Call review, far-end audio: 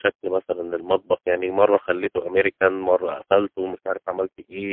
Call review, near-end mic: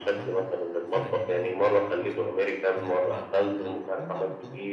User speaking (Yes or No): Yes